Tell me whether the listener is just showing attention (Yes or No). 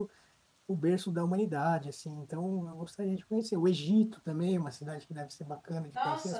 No